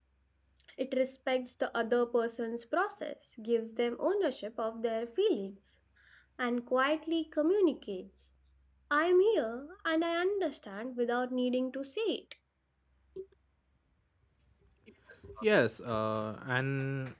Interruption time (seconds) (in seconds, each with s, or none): none